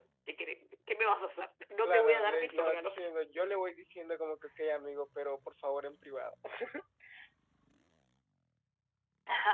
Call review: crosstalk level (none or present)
present